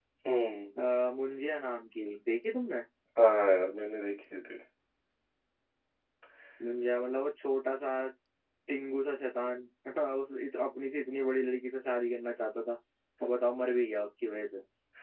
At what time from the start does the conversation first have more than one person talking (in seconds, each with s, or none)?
none